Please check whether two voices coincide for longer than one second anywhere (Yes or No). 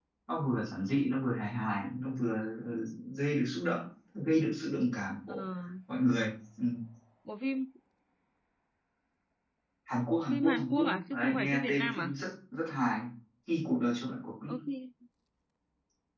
Yes